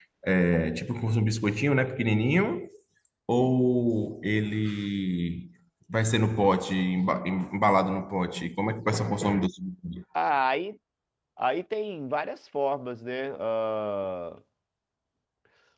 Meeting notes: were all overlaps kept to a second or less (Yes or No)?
Yes